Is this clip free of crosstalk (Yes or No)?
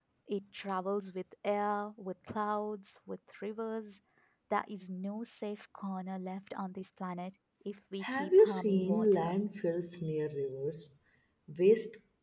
No